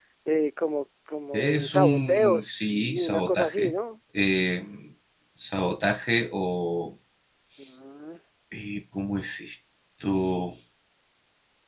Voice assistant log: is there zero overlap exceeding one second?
No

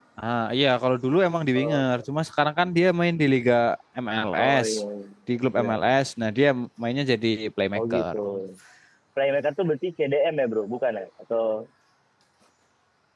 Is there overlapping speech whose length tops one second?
No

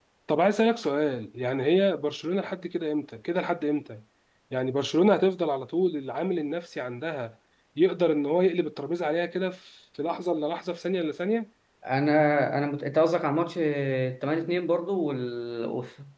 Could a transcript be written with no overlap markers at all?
Yes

